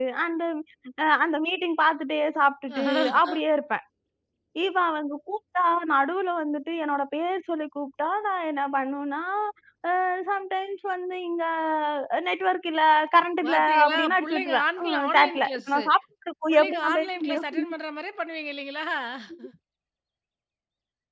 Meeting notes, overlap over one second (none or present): present